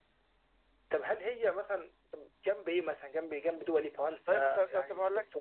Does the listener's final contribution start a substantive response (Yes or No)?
Yes